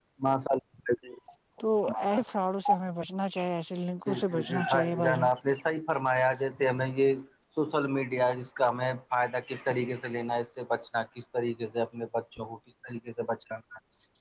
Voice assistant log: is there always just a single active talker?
No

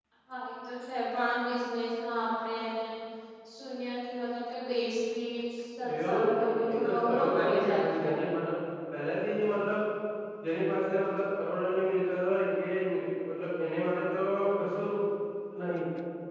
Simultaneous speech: Yes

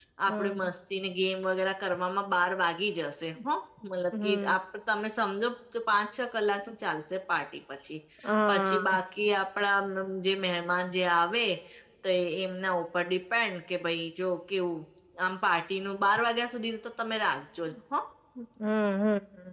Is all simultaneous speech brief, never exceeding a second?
Yes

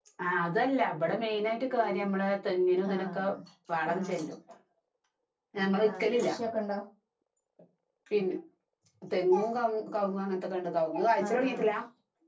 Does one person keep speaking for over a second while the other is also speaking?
No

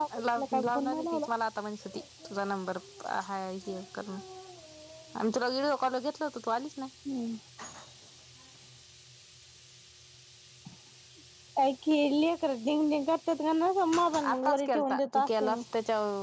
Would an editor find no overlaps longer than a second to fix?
No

